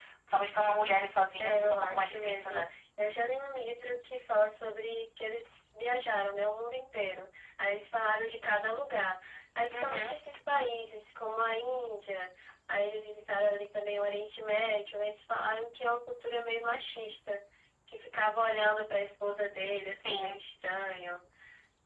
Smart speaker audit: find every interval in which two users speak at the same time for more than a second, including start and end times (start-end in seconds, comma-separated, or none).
1.4-2.7